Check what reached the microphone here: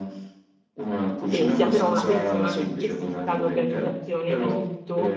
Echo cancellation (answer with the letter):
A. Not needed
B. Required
B